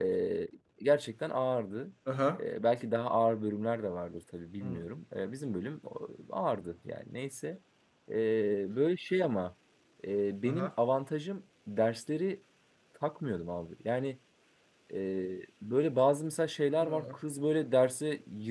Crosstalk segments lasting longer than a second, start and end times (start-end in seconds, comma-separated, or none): none